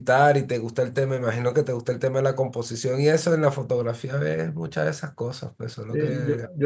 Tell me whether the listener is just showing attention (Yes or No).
No